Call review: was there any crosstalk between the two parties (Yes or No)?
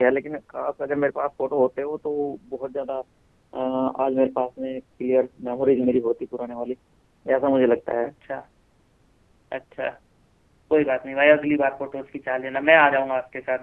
No